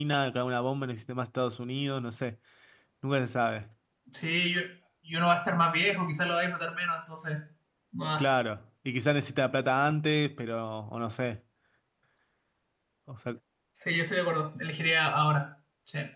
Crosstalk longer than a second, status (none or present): none